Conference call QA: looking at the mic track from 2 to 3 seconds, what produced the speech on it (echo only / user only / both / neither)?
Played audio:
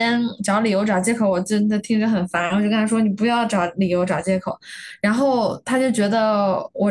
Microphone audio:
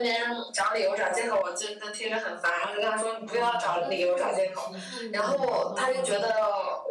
echo only